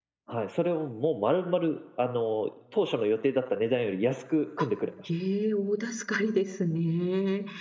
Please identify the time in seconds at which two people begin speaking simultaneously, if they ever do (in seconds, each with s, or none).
none